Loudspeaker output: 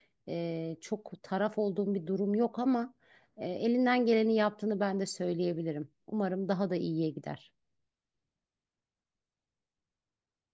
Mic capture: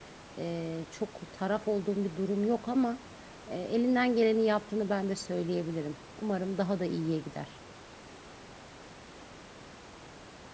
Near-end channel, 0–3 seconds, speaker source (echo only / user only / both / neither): echo only